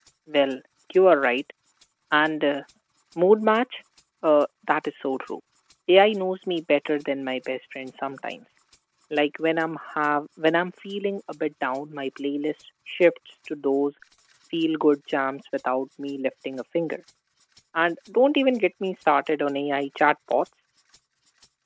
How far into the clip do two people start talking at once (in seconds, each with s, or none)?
none